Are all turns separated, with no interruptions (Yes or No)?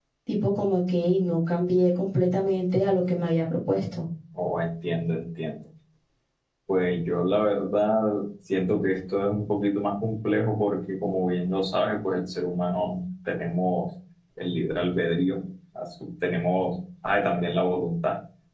Yes